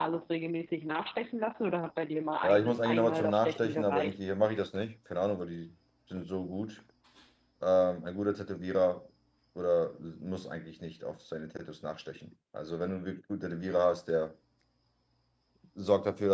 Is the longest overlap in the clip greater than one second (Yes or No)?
Yes